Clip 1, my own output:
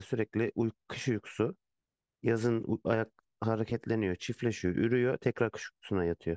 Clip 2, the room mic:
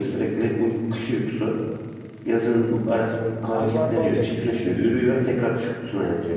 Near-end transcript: haydi soruyorum. Arılar bal yapıyor biliyorsun.

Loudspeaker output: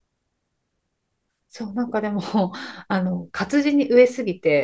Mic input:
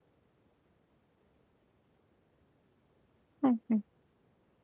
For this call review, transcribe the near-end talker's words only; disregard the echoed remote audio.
はい、はい。

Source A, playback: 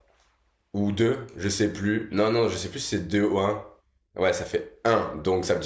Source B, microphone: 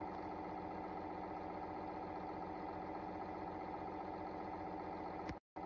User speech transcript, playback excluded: none

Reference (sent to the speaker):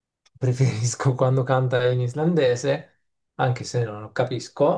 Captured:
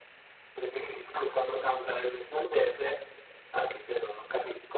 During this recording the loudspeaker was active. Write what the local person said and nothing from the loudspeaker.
none

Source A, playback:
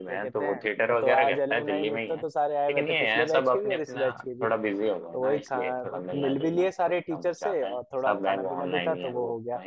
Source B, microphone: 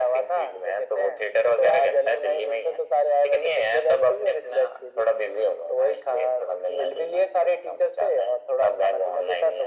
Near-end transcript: none

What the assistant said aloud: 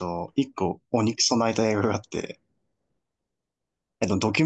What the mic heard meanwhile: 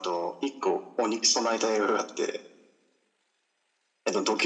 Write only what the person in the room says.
none

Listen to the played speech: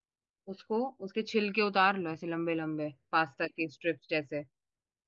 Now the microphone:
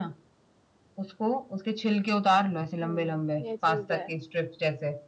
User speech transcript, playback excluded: हम्म, ये चीज है

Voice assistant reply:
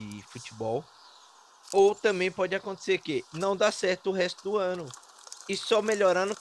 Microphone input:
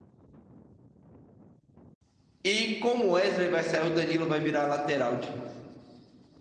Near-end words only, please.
E como o Wesley vai sair, o Danilo vai virar lateral de novo.

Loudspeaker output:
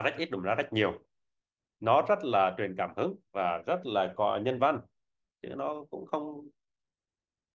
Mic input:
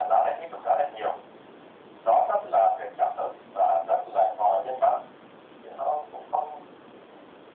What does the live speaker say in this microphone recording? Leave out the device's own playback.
none

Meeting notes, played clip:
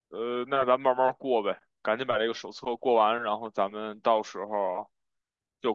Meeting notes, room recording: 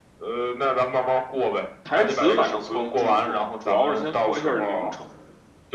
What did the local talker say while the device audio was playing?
台词反正不用注重，主要是先过一下流程。

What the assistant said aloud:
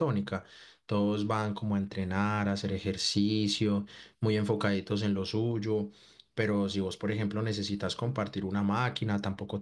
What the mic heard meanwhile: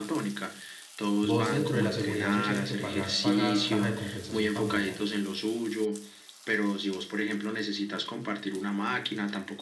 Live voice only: Vos dentro de la seguridad social que pagás, pagás caja de compensación familiar.

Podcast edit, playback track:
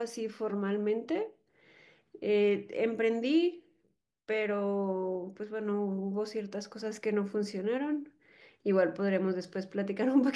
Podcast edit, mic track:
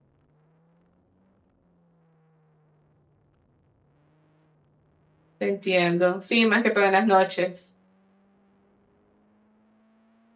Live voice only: te entiendo. Sí, más que todo en las noches.

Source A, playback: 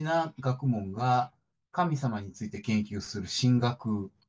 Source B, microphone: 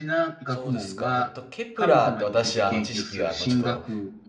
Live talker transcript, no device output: そうですか。えっと、ケプラーって私、あの、知識が、あの、ちょっと、

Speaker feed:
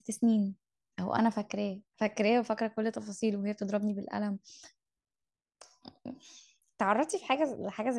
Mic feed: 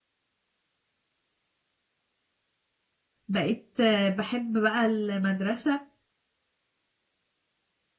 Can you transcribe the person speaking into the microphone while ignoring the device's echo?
بقيت آه، بحب بقى المدرسه

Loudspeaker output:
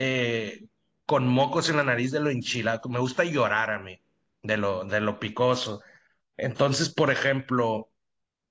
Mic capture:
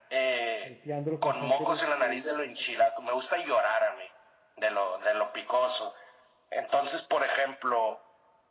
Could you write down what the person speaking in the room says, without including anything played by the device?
salteándolo constantemente, moviéndolo constantemente,

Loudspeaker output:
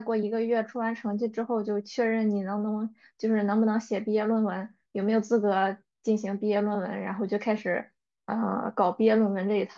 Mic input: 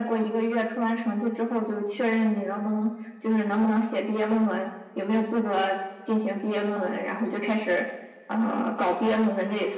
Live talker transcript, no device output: none

